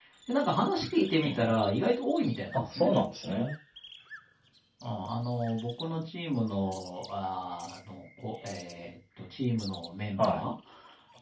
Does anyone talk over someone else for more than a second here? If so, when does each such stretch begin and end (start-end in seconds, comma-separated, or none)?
none